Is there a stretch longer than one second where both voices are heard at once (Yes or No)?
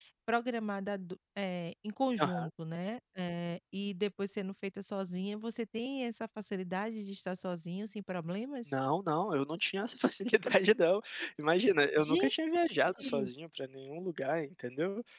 No